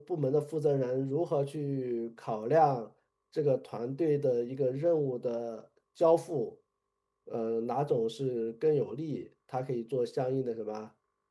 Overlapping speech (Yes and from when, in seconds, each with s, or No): No